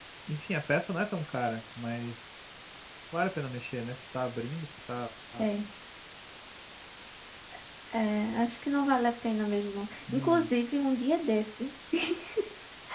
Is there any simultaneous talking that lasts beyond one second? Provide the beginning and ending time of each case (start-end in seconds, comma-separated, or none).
none